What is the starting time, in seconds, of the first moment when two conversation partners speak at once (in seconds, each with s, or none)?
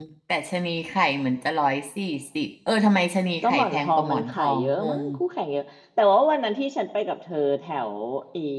3.4 s